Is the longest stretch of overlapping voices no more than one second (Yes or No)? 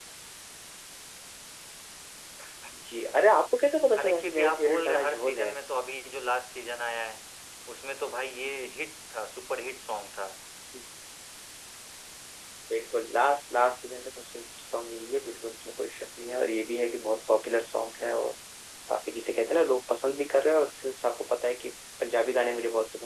No